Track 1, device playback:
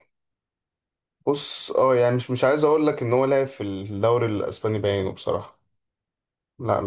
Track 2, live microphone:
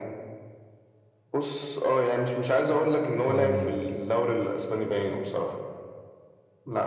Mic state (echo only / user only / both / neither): both